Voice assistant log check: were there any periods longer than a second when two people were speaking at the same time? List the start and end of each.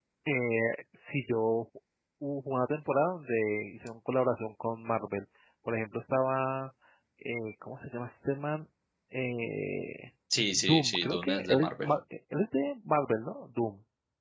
10.6-12.0

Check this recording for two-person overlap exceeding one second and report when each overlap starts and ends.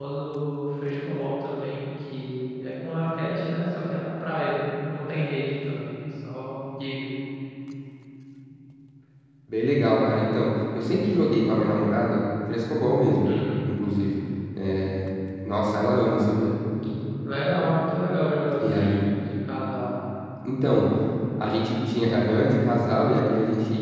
none

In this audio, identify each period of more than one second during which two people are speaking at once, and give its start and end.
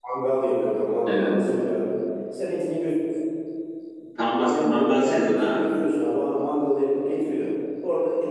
4.4-5.6

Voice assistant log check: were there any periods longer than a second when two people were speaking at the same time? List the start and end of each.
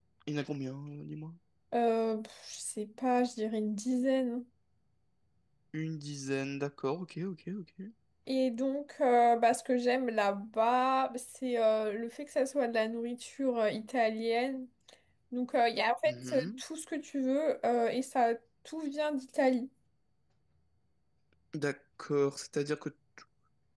none

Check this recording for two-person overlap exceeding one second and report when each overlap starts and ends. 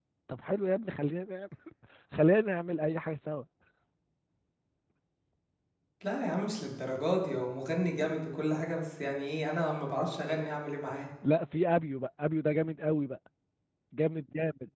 none

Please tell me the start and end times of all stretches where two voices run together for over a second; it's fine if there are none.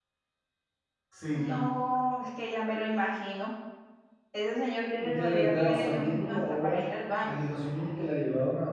5.0-6.8

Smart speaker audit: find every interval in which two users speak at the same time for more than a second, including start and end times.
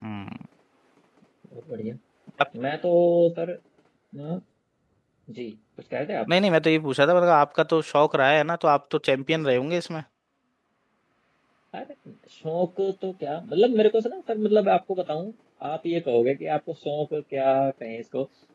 none

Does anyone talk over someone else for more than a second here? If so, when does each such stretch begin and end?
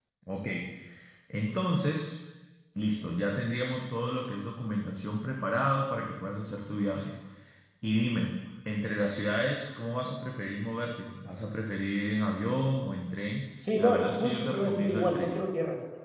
13.8-15.4

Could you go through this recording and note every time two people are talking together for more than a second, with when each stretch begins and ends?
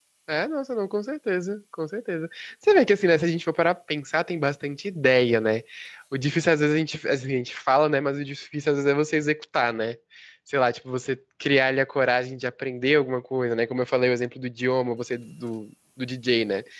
none

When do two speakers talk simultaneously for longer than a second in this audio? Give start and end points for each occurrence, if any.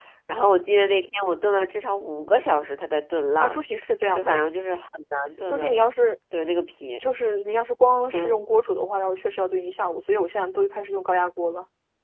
none

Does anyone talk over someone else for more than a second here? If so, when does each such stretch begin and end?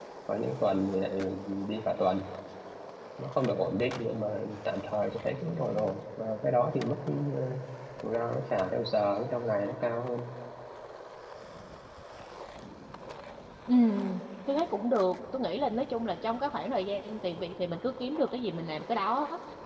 none

